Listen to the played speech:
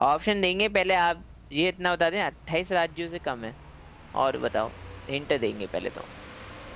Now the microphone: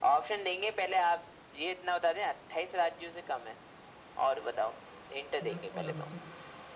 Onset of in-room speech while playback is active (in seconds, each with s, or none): 5.4 s